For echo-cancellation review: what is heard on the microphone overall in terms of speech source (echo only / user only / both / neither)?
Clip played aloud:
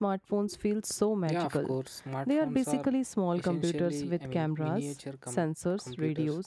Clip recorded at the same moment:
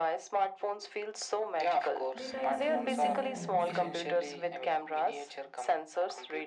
both